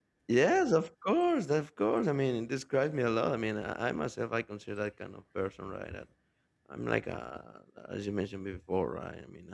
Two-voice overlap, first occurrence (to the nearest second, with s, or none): none